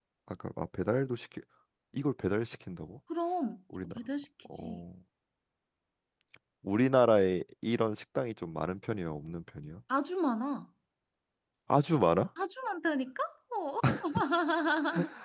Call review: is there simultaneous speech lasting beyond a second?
No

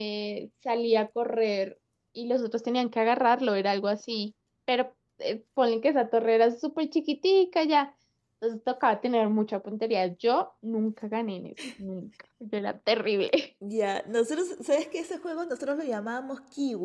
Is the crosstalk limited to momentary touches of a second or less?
Yes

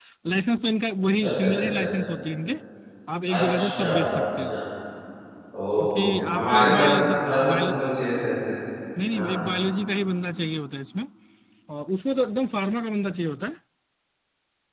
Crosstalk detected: Yes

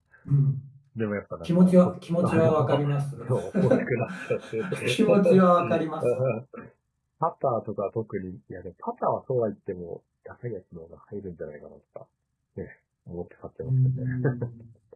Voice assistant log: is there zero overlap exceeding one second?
No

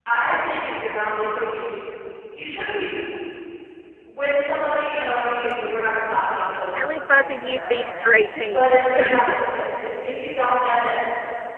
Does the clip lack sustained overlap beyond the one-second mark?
No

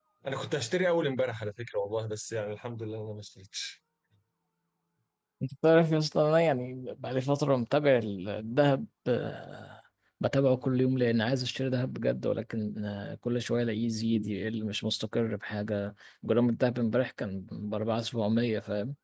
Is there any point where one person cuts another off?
No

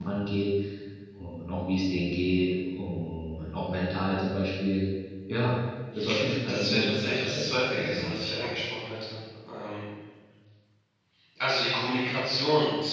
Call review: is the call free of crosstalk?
No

